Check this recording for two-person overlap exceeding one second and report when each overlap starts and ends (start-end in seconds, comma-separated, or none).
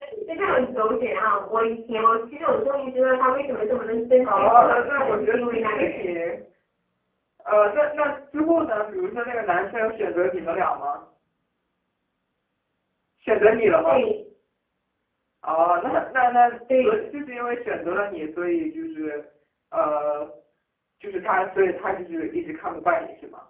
4.2-6.1